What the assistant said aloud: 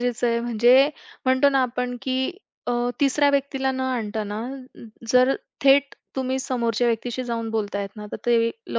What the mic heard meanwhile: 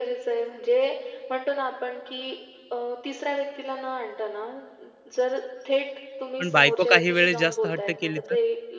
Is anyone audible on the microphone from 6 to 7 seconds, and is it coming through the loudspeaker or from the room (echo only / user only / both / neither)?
both